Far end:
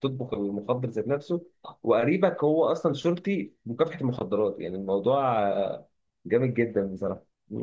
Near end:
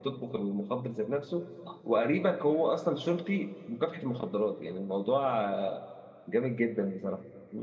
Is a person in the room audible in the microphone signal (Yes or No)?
No